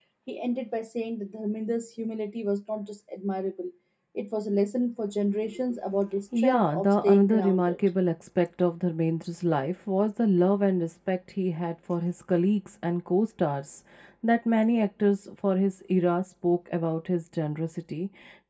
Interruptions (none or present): present